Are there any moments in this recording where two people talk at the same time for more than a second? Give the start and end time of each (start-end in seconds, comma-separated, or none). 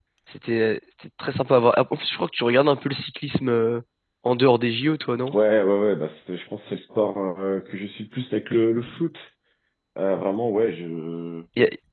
none